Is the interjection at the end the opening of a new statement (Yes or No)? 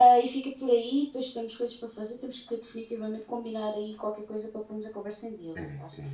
Yes